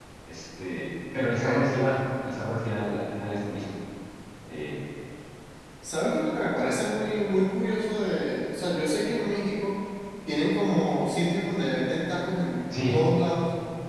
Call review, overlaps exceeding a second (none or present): none